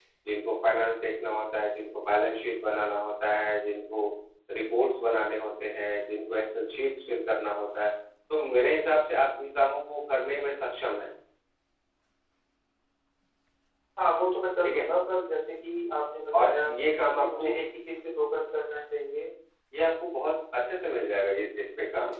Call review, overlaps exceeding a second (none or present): none